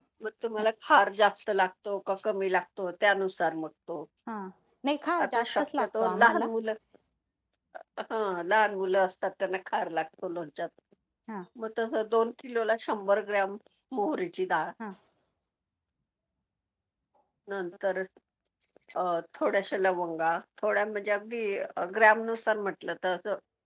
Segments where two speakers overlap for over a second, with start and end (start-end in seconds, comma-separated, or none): 5.2-6.5